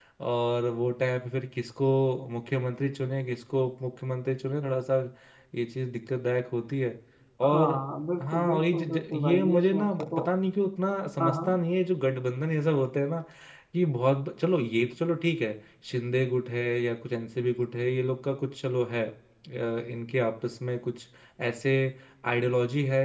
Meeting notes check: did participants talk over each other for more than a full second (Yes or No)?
Yes